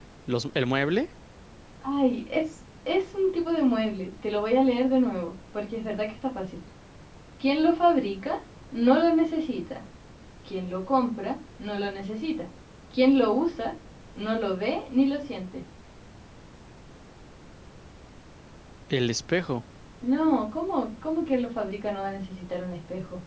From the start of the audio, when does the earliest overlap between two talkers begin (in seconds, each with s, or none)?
none